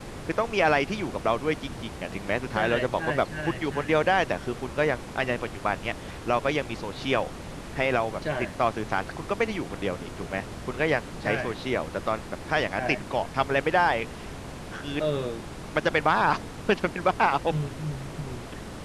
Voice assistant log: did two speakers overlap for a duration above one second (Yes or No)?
Yes